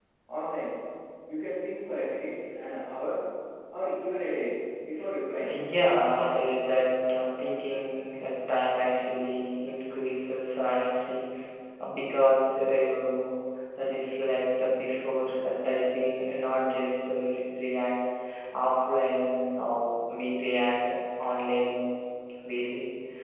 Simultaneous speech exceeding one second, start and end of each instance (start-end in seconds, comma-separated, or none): none